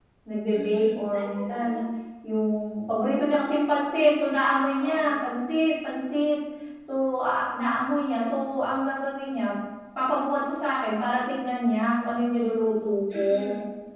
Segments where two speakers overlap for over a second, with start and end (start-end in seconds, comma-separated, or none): 0.5-1.8